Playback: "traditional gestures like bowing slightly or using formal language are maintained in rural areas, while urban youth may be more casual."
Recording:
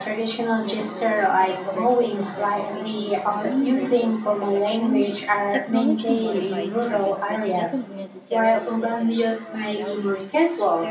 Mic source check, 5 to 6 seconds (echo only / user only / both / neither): both